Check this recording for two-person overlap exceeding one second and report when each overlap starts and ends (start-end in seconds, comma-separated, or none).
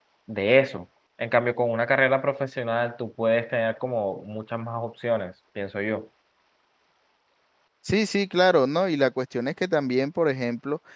none